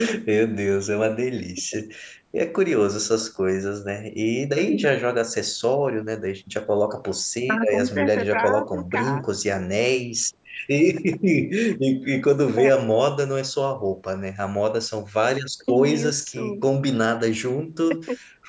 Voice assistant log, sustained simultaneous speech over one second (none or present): present